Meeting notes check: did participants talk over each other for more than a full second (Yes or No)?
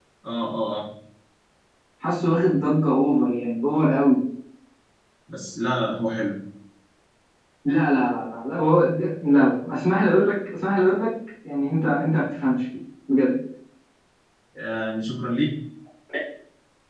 No